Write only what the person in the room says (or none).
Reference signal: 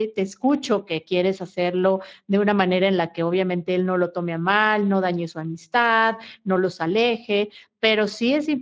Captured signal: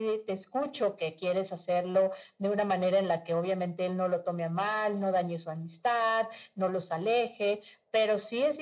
none